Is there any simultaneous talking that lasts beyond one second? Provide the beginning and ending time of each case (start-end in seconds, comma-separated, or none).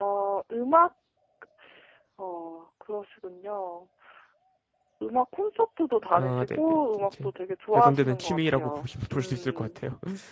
7.7-9.8